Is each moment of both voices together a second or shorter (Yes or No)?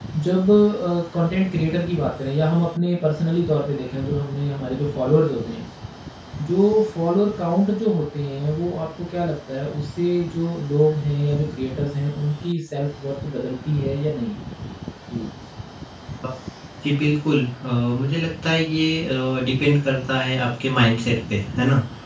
Yes